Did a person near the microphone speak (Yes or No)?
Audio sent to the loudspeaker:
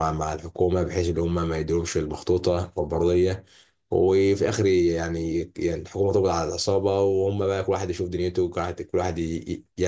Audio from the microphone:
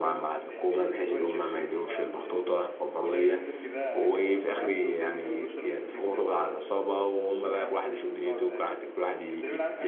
Yes